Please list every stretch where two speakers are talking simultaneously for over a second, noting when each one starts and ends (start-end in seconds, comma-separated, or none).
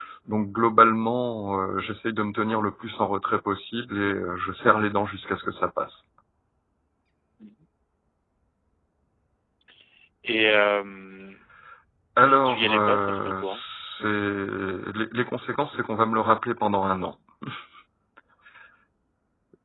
12.2-13.6